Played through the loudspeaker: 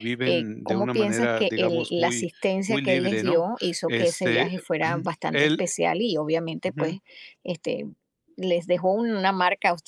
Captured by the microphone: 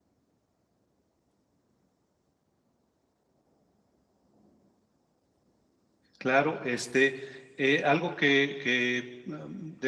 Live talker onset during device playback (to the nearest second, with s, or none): 6 s